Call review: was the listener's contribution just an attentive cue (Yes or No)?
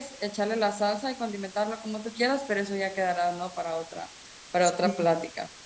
No